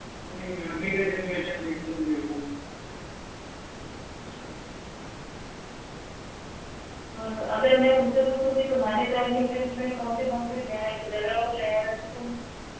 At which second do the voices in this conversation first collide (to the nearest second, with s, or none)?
none